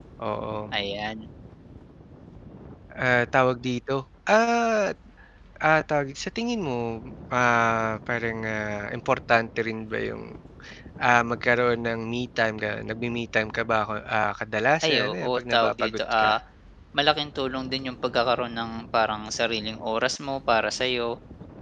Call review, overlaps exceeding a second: present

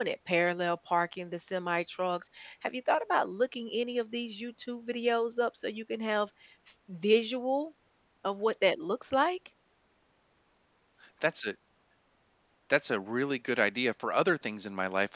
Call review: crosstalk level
none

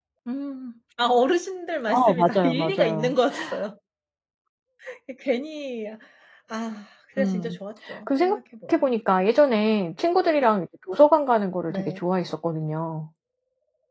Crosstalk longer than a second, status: present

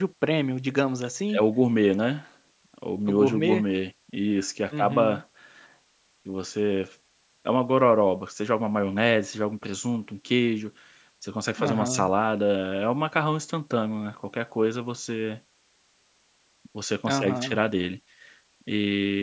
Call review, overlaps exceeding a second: none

